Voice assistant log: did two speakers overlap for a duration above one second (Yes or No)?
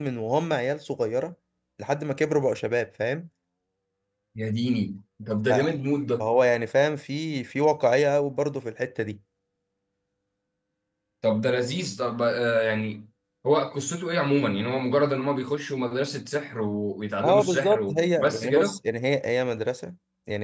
Yes